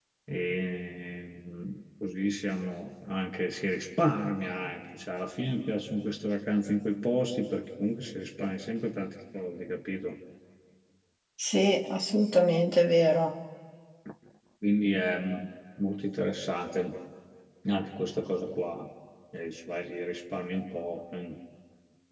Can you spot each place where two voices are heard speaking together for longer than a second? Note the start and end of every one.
none

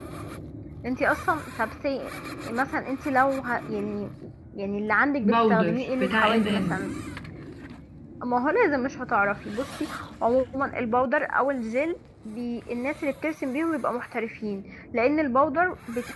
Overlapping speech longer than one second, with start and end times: 5.2-6.9

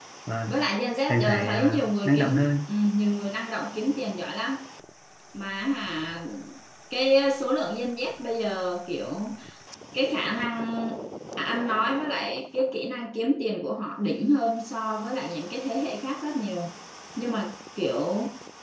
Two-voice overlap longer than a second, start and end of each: 1.1-2.6

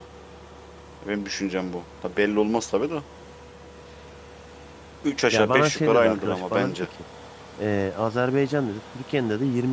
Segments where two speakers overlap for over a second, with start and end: 5.3-6.9

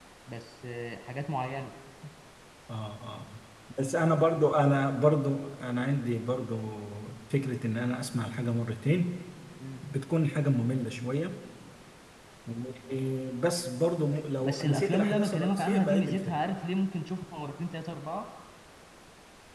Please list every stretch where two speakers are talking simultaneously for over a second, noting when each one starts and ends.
14.4-16.4

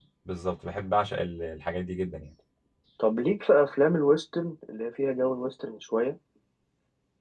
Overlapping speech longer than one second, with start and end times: none

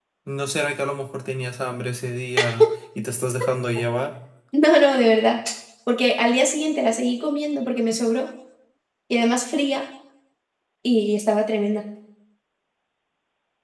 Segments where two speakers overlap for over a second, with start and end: none

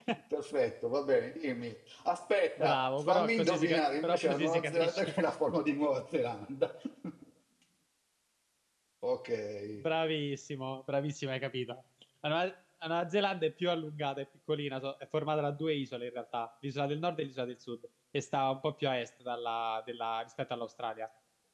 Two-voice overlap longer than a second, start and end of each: 2.6-5.0

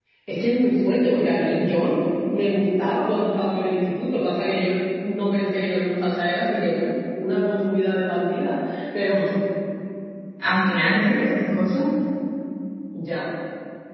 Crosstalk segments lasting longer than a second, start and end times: none

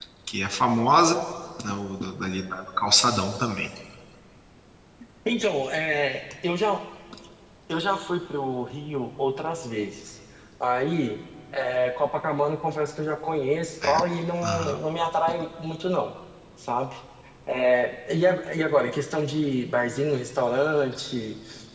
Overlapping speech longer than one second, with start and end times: none

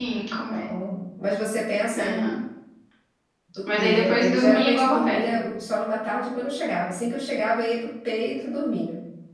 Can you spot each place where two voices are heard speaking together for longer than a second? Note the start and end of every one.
3.7-5.3

